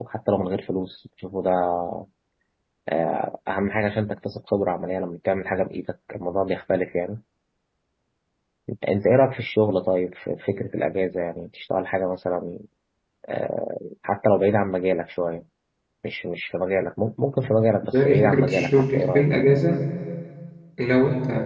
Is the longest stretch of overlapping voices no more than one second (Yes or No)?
No